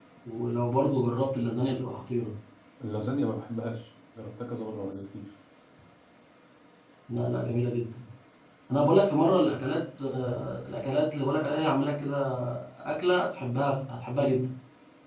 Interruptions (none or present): none